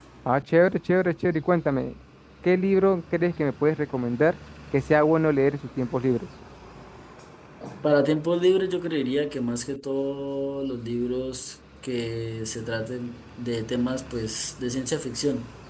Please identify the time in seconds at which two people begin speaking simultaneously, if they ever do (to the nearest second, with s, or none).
none